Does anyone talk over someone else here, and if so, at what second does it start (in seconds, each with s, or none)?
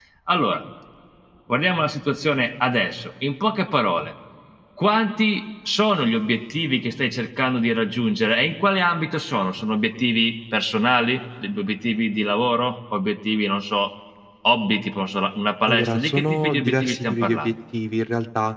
15.6 s